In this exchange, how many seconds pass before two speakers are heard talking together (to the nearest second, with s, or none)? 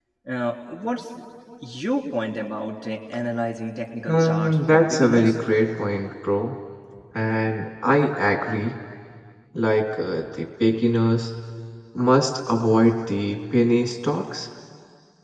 4 s